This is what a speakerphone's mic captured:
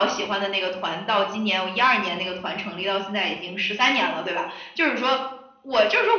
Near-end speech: none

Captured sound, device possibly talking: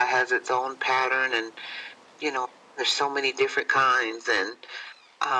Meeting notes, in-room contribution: none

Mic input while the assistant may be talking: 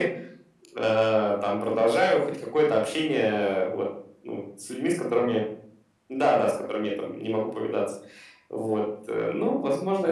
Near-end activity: none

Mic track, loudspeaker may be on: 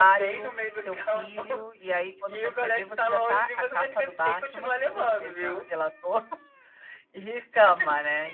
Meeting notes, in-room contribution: present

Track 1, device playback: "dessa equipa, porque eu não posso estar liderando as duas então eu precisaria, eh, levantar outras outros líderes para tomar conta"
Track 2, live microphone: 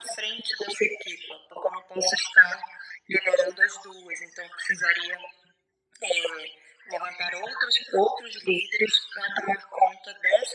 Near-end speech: none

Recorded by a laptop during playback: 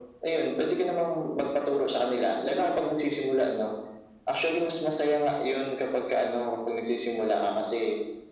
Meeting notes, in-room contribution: none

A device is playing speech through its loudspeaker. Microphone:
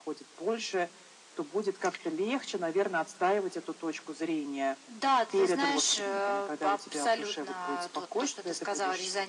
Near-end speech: none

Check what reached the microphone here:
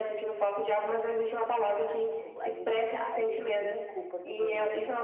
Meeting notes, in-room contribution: present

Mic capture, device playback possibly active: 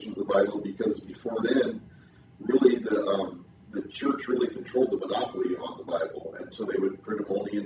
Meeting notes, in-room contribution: none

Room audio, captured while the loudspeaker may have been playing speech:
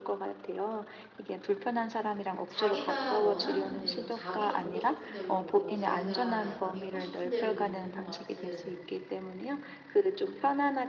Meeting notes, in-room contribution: present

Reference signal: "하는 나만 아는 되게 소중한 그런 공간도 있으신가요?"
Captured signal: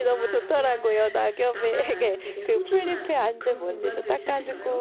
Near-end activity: present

